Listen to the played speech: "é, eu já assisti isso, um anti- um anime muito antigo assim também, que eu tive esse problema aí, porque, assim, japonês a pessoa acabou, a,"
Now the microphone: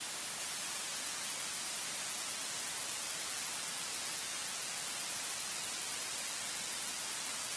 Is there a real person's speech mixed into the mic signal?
No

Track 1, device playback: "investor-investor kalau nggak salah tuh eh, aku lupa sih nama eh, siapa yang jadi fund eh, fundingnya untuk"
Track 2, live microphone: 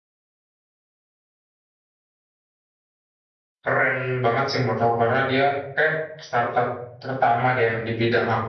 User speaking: Yes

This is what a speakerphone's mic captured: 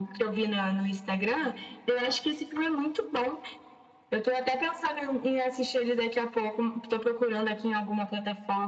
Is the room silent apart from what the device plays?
Yes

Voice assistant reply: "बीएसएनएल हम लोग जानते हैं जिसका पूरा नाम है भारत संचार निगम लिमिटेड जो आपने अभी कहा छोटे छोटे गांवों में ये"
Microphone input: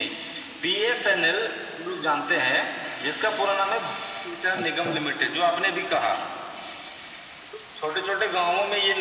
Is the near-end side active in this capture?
Yes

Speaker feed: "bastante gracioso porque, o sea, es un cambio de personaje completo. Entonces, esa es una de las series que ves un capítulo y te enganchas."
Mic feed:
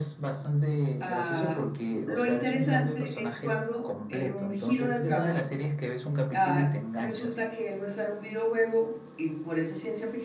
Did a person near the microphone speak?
Yes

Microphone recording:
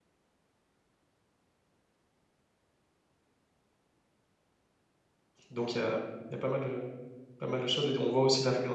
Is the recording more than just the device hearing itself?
Yes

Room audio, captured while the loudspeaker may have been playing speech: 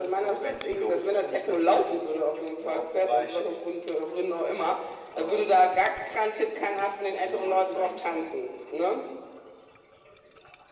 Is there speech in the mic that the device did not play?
No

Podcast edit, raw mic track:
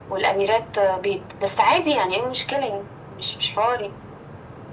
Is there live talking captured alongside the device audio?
No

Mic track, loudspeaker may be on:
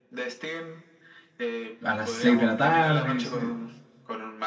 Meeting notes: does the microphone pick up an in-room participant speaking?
Yes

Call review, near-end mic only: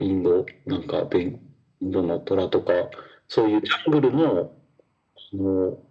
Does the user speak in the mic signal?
No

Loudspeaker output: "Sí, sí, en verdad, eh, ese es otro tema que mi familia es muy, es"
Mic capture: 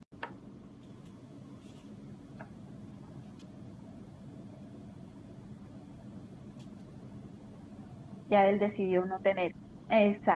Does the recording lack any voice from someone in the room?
No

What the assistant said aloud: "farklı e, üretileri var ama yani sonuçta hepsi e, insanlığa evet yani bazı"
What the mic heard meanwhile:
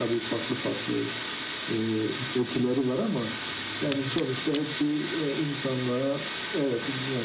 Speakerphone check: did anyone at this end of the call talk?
No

